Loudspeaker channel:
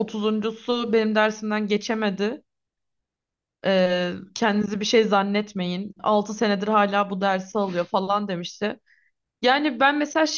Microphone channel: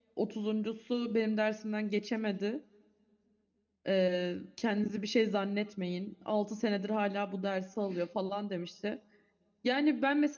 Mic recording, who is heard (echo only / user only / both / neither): echo only